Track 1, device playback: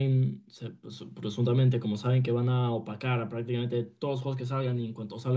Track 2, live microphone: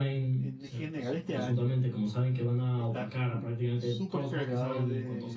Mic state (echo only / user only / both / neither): both